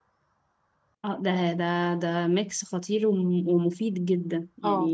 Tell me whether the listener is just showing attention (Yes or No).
No